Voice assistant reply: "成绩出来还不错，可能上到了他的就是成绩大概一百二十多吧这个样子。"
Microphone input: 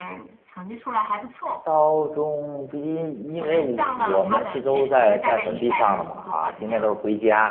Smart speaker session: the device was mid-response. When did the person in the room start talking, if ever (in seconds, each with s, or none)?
1.6 s